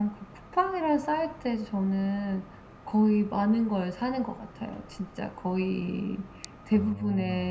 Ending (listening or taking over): listening